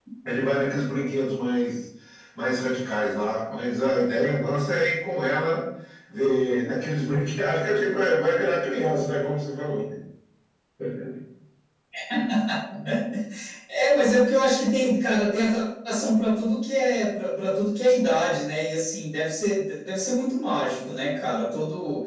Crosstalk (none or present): none